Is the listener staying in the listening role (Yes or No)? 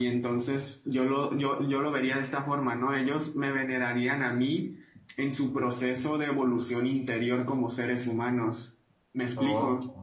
No